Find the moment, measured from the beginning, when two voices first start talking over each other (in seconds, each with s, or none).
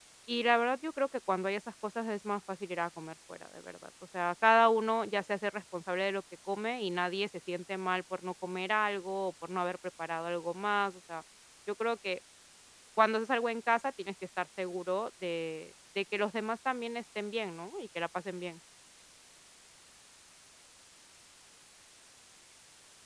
none